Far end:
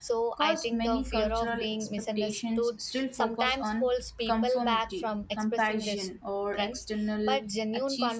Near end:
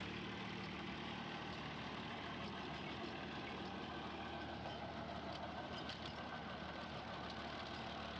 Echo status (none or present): none